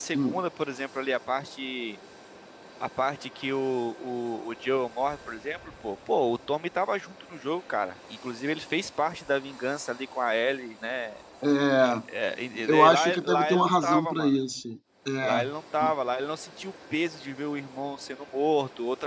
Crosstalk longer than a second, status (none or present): present